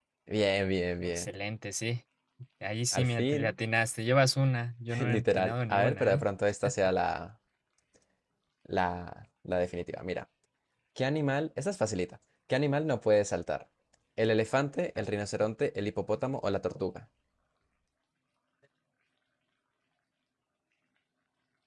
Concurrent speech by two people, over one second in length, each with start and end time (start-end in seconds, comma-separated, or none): 5.0-6.2